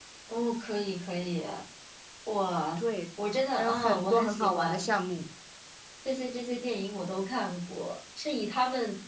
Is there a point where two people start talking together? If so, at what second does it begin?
3.6 s

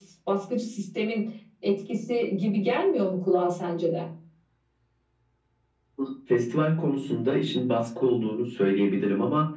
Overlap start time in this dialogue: none

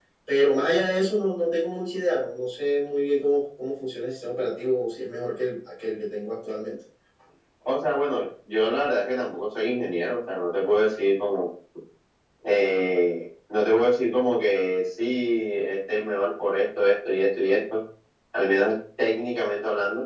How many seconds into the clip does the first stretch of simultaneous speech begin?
none

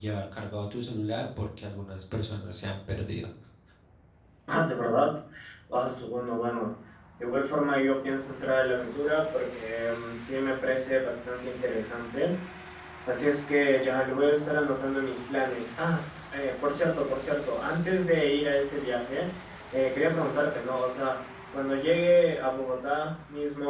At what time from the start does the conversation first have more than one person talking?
none

